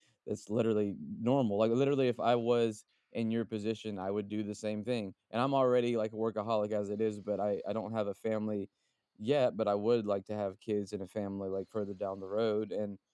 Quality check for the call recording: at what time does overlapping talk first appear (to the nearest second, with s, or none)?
none